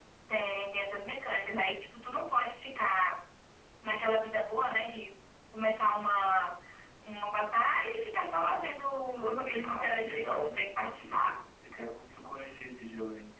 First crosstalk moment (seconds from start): 9.6 s

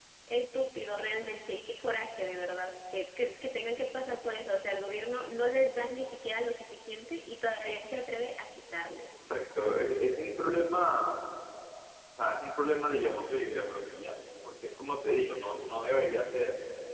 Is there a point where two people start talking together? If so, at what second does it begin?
none

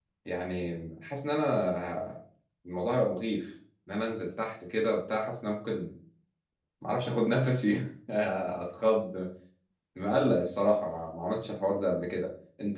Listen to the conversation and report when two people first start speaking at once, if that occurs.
none

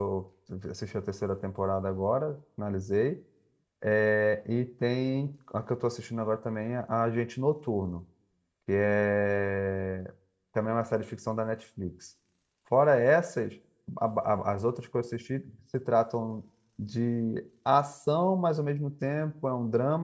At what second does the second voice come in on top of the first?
none

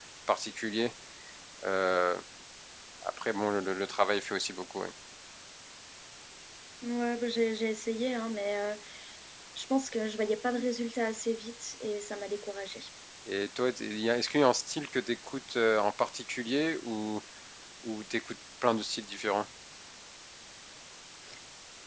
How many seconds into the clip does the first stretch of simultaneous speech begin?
none

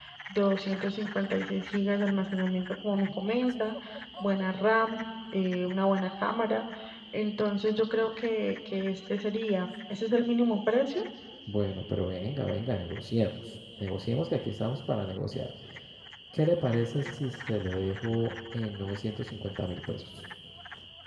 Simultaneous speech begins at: none

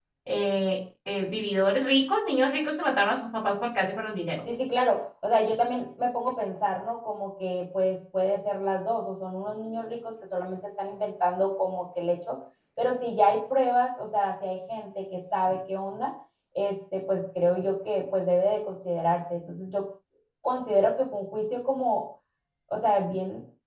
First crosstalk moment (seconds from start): none

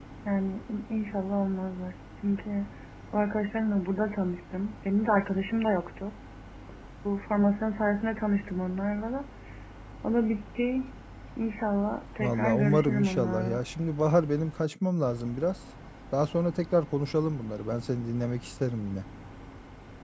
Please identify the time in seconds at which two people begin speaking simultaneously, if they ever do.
12.2 s

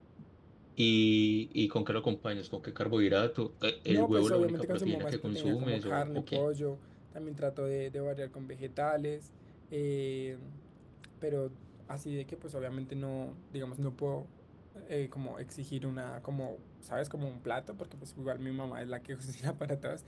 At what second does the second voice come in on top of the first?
3.9 s

